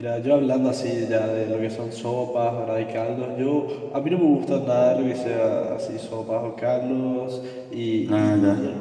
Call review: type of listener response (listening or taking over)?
listening